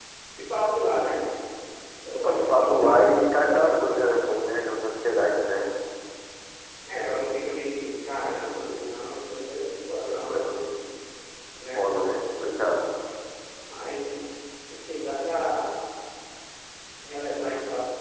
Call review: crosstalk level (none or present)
present